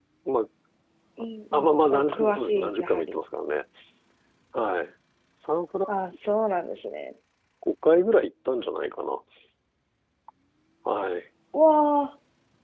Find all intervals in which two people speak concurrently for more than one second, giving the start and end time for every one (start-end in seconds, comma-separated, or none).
1.5-3.2